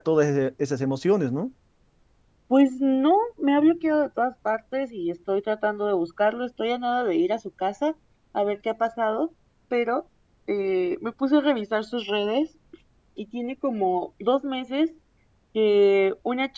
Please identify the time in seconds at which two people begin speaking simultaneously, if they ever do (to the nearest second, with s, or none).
none